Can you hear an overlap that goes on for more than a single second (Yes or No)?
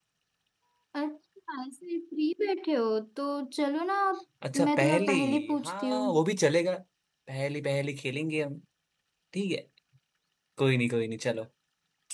Yes